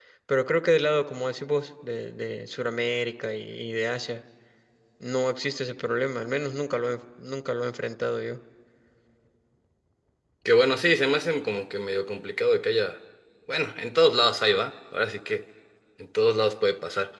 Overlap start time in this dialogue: none

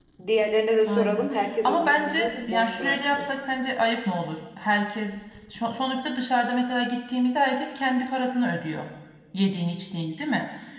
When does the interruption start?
0.9 s

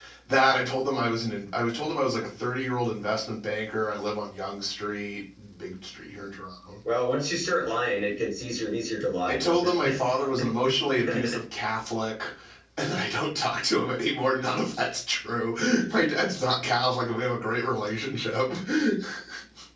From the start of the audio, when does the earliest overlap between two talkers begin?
9.3 s

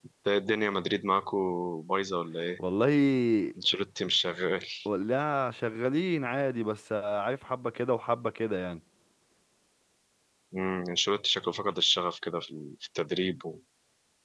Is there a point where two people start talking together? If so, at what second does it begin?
none

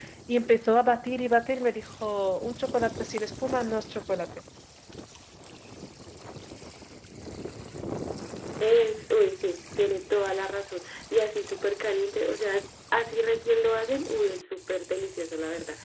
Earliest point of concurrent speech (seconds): none

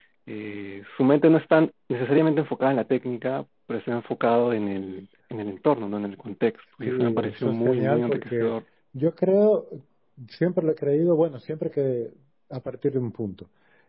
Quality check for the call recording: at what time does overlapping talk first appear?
6.9 s

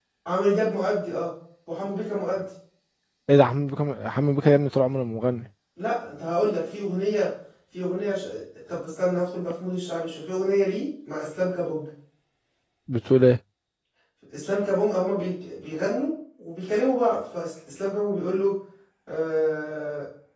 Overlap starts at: none

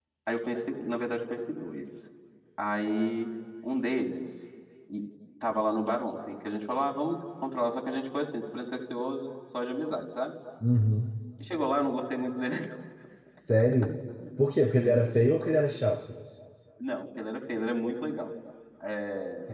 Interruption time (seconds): none

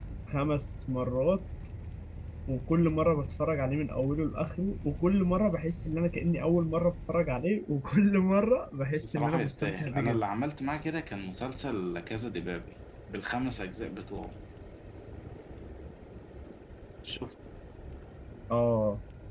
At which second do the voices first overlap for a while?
9.0 s

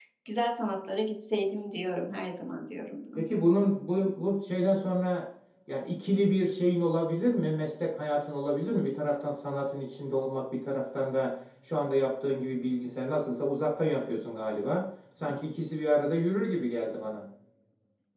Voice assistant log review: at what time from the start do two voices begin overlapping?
none

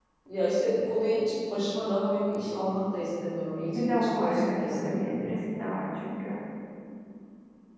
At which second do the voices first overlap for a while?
3.7 s

